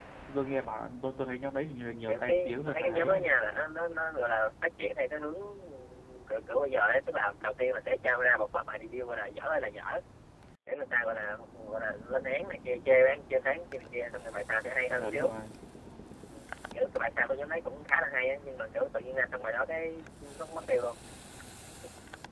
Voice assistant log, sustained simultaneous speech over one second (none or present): present